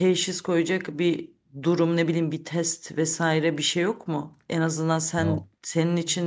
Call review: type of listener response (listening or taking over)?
listening